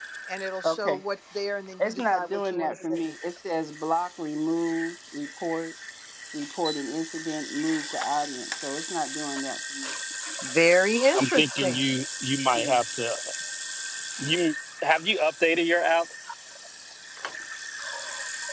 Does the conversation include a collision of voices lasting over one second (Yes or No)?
Yes